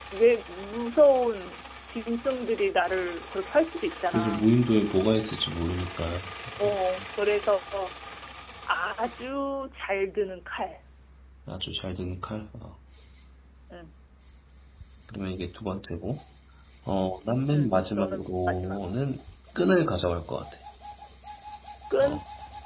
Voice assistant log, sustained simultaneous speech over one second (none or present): present